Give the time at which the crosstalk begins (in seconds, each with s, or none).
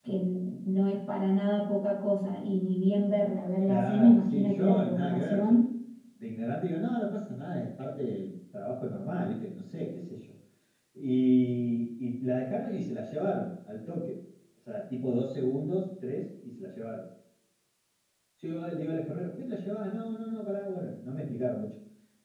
3.7 s